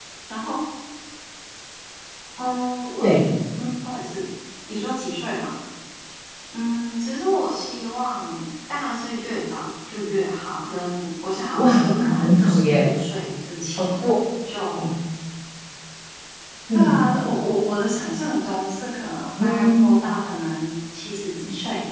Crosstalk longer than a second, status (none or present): present